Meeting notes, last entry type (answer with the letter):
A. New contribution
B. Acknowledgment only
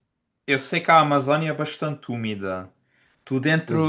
B